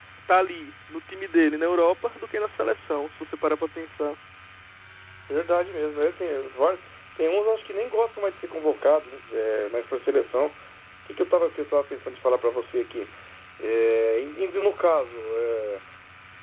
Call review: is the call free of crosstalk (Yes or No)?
Yes